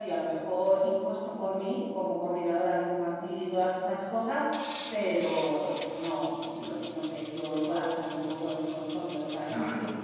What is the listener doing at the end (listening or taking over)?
taking over